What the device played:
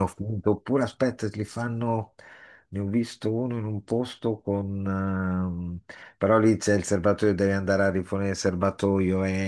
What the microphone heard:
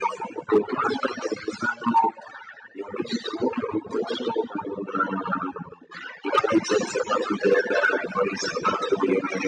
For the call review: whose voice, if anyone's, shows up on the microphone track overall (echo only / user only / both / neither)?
echo only